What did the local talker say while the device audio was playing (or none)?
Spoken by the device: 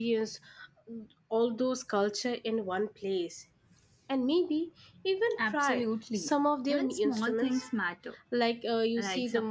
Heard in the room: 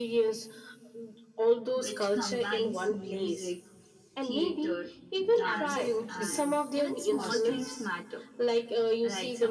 which combines music, theater, dance, and costumes.